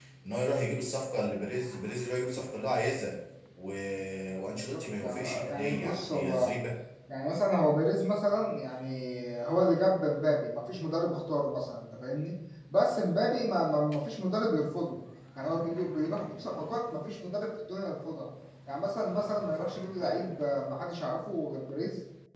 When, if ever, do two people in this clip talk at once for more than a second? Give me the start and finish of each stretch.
4.5-6.5

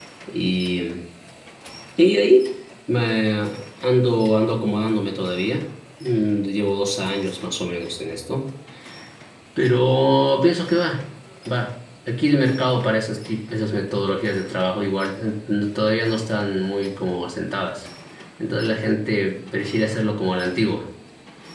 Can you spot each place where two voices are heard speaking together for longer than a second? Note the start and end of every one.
none

